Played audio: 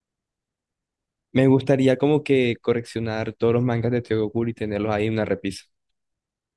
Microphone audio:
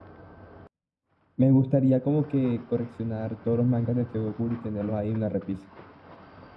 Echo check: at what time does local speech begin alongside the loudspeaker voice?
none

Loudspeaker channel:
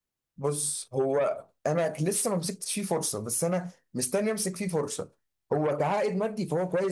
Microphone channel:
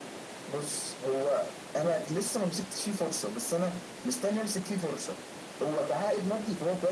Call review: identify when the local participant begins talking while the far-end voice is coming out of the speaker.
none

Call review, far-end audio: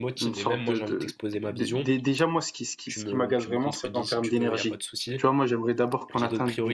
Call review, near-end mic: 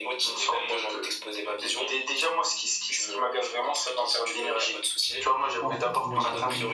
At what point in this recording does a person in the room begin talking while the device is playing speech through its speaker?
5.6 s

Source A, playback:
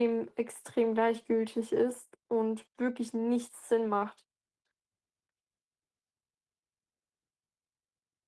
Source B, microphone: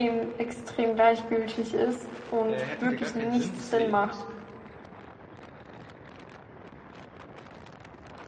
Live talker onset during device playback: 2.5 s

